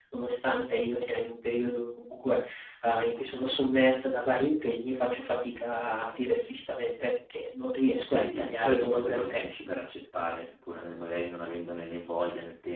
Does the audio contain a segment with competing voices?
Yes, from 8.0 s

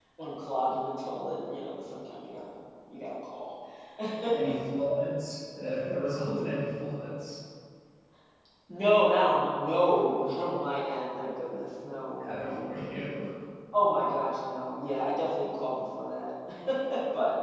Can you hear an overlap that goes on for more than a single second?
No

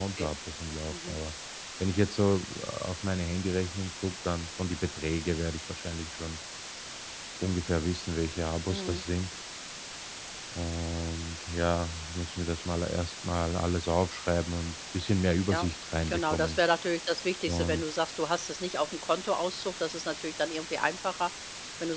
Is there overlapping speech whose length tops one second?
No

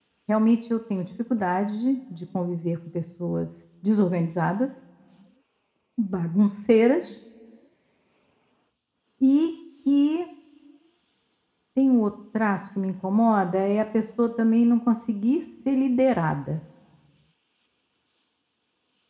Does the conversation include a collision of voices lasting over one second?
No

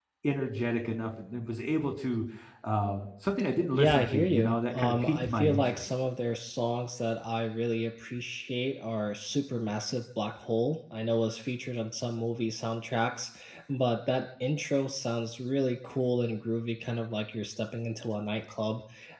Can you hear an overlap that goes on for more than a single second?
Yes, from 3.8 s

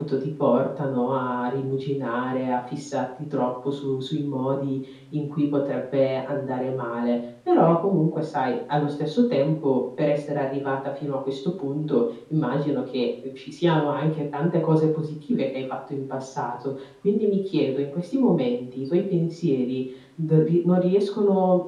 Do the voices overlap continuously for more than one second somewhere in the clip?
No

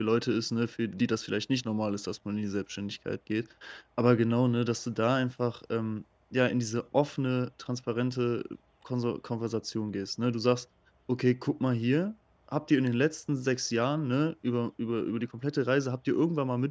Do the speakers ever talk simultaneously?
No

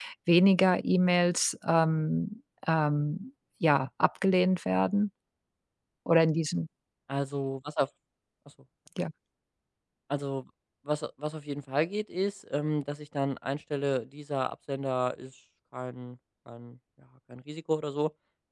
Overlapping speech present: No

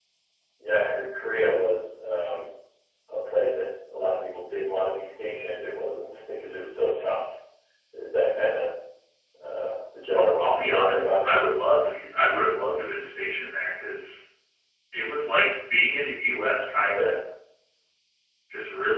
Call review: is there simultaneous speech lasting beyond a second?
Yes, from 10.1 s

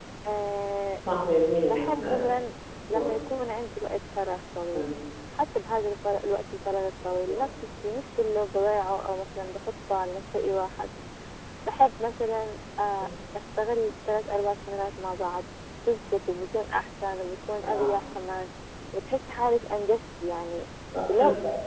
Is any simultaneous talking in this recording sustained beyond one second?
No

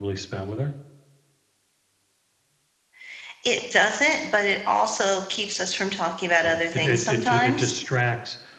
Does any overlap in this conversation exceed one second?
Yes, from 6.4 s

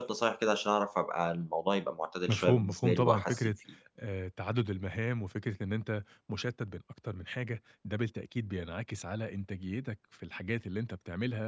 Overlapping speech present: Yes, from 2.3 s

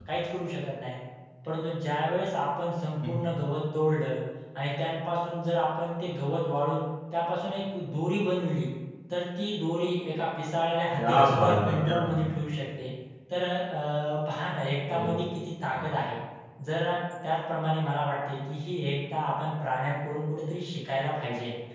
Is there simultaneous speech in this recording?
Yes, from 11.0 s

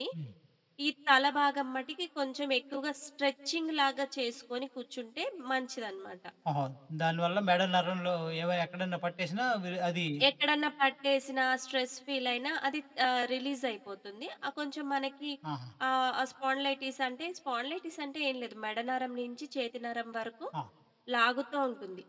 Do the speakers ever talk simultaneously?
No

